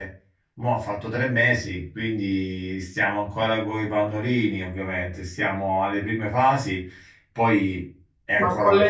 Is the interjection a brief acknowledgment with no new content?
No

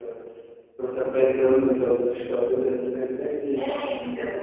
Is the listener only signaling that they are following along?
No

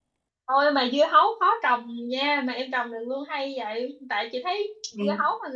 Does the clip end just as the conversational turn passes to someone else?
No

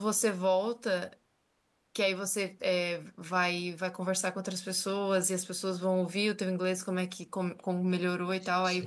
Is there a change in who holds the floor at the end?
No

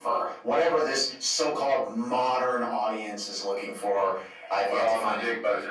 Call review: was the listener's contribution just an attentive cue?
No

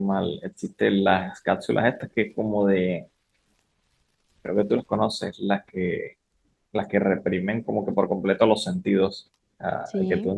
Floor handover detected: No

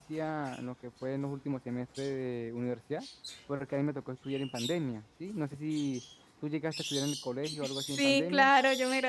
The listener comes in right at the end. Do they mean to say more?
Yes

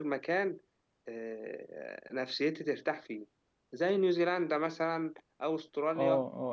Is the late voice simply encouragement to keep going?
No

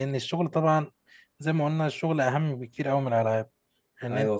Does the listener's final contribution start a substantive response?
Yes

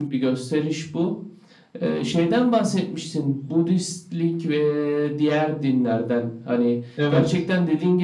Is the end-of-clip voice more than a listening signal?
No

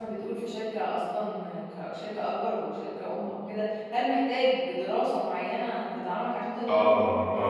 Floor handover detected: Yes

